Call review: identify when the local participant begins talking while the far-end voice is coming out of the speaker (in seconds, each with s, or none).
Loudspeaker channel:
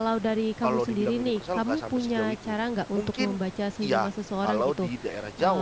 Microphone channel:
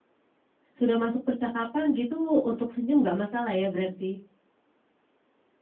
0.8 s